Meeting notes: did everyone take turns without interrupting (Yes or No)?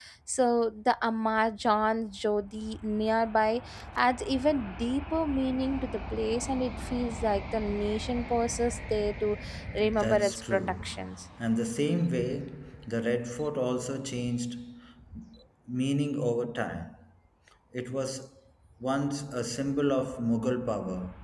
No